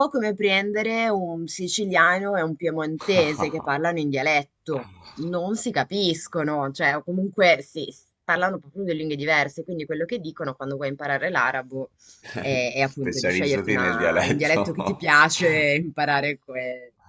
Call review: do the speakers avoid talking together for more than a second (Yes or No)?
No